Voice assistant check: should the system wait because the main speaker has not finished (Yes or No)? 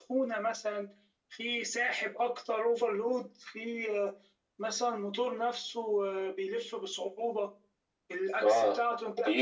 No